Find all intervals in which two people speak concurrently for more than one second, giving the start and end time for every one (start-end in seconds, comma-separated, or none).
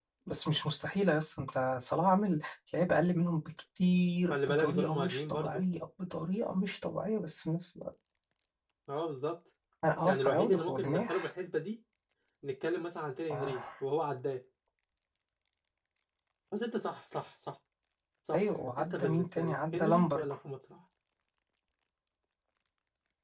4.3-5.6, 10.1-11.3, 18.3-20.2